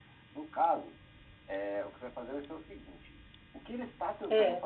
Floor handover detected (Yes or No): No